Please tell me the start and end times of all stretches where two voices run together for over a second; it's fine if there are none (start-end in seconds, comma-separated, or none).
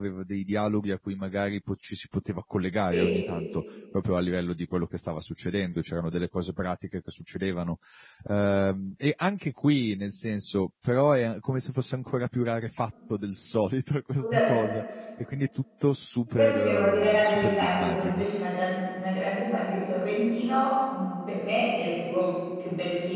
16.3-18.3